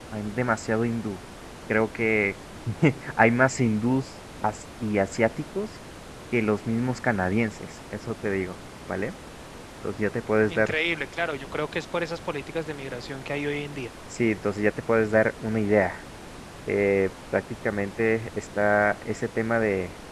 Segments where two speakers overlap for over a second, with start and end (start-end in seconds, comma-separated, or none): none